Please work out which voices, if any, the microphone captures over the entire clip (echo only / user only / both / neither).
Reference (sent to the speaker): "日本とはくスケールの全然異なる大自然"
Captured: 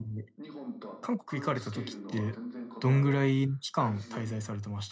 both